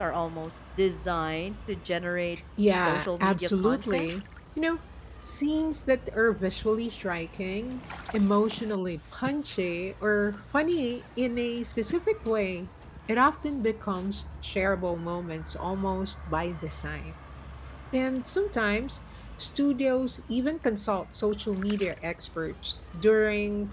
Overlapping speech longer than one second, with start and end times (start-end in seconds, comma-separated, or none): 2.7-4.1